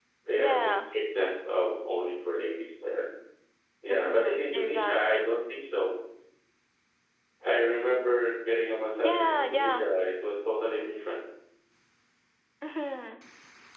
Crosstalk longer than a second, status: present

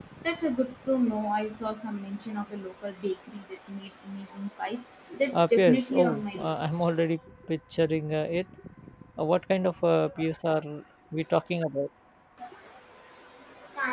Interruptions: present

